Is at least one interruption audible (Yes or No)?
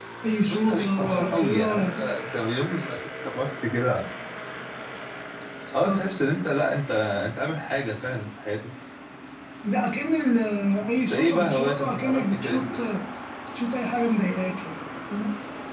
Yes